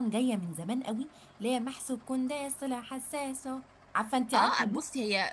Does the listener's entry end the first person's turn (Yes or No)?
Yes